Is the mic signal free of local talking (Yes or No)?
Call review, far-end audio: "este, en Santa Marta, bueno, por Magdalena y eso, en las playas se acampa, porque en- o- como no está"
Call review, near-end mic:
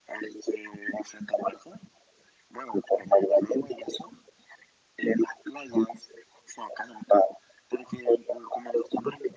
Yes